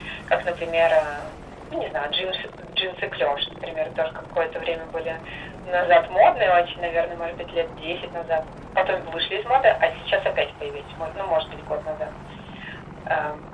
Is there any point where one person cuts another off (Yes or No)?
No